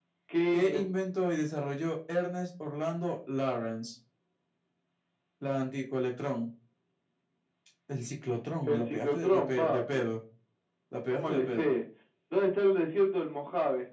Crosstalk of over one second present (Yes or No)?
Yes